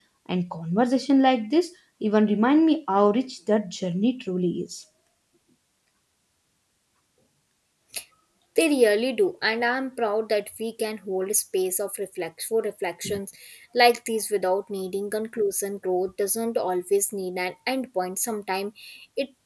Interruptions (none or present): none